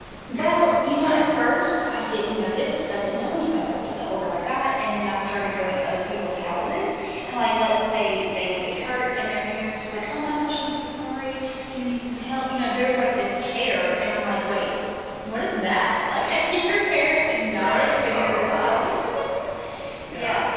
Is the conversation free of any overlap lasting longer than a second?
No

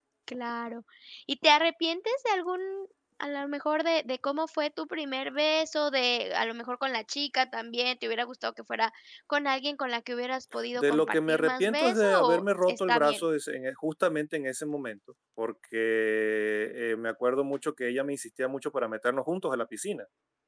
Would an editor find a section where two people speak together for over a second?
Yes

